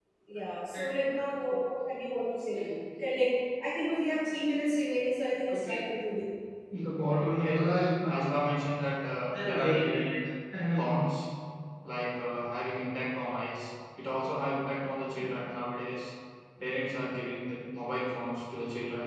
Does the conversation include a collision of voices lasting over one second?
No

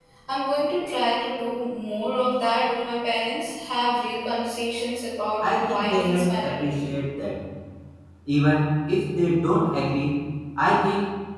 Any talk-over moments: Yes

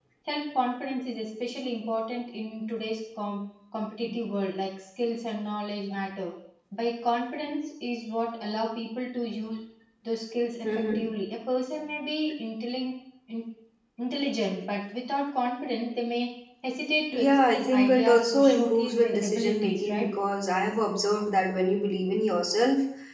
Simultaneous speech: Yes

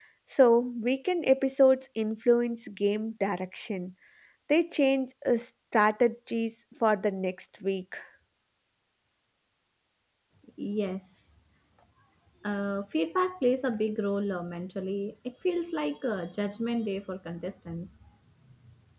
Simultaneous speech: No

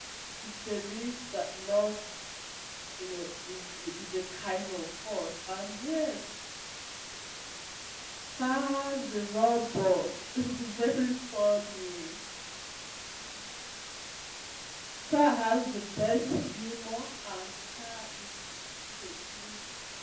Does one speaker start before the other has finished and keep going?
No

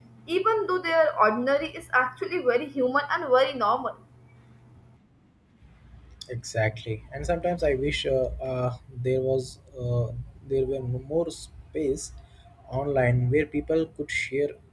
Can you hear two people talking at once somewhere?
No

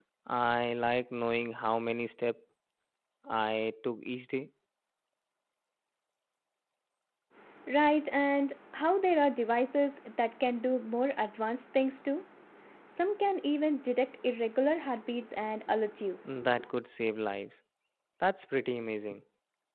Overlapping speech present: No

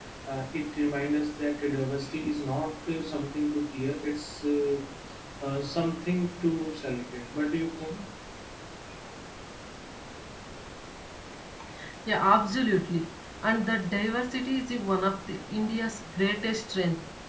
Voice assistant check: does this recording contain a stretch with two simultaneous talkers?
No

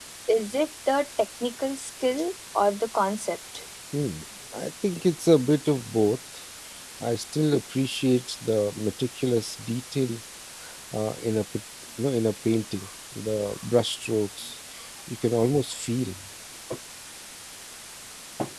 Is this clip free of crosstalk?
Yes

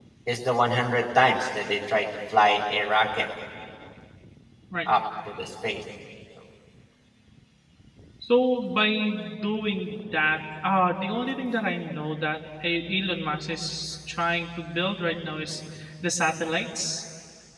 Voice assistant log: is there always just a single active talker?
Yes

